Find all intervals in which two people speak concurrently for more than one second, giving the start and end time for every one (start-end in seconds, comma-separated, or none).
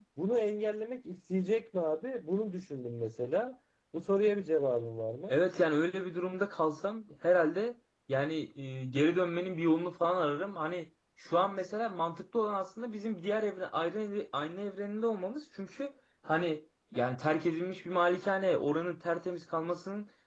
none